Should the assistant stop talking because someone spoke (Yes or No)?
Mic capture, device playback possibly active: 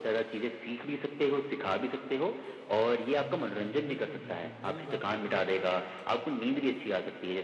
Yes